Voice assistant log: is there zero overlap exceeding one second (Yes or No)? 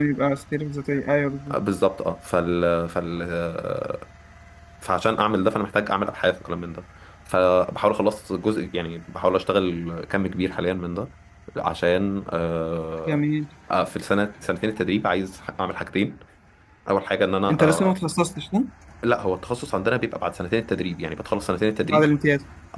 Yes